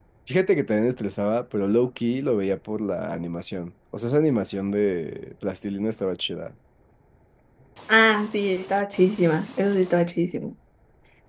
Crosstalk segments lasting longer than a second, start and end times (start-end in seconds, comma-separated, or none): none